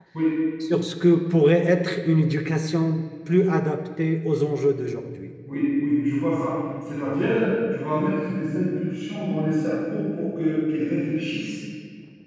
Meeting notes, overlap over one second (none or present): none